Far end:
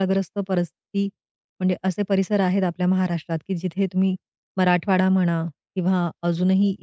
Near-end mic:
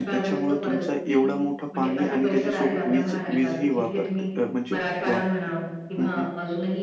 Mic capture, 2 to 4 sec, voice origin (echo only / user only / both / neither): both